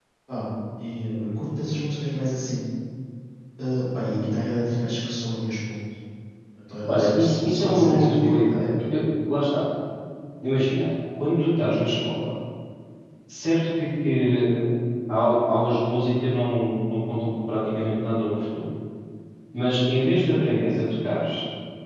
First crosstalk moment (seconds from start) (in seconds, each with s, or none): 6.9 s